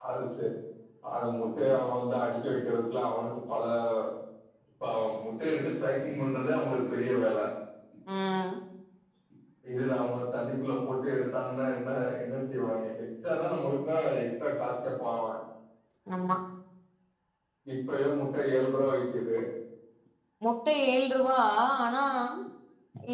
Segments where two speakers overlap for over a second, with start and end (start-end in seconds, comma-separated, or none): none